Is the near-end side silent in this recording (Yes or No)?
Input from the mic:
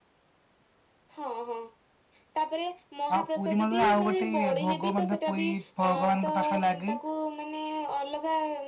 No